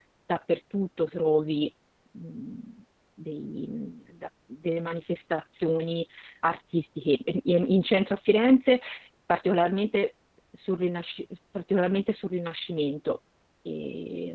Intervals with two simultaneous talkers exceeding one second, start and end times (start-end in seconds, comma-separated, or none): none